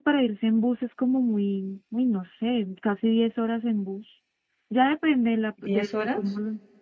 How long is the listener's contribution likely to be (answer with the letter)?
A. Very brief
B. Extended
A